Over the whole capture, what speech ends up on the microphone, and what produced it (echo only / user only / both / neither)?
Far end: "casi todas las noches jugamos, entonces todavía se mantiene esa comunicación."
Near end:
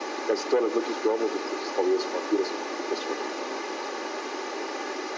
echo only